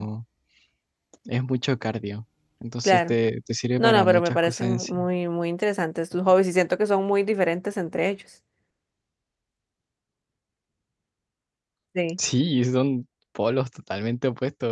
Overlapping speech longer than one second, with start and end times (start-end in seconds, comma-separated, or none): 3.8-5.0